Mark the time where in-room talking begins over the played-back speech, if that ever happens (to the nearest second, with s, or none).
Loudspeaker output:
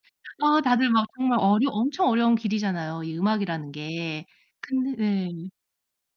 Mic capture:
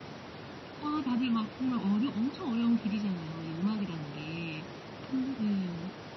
none